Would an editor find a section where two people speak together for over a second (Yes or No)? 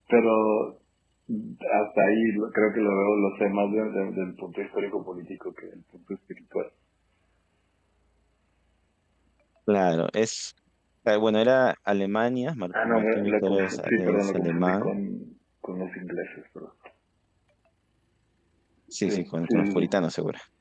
Yes